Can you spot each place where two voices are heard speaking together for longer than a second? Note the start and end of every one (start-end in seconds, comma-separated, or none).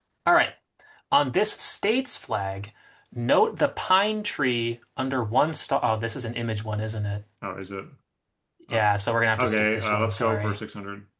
9.4-10.6